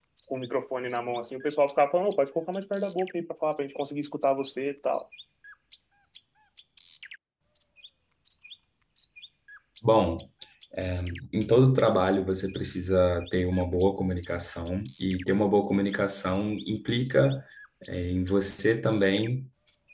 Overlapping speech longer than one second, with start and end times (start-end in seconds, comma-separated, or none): none